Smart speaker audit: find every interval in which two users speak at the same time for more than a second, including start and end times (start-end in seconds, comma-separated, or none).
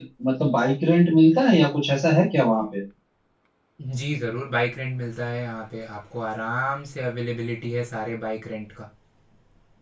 none